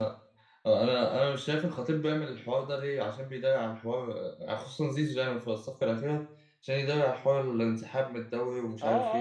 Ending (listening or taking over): taking over